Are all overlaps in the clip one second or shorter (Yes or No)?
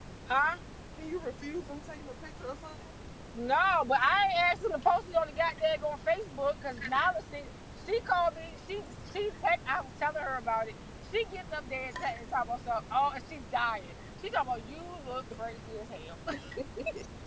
Yes